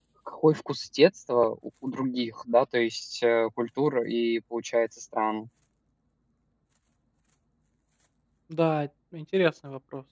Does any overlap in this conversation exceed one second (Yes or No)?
No